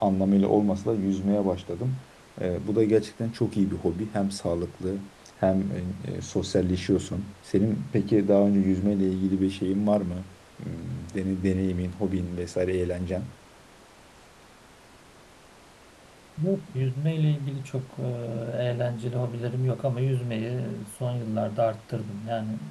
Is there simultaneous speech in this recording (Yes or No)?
No